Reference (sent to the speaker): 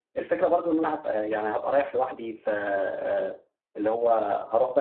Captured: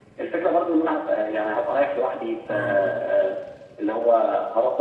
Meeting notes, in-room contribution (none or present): present